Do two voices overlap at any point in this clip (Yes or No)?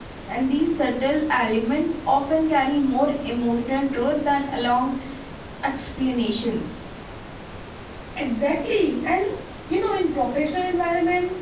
No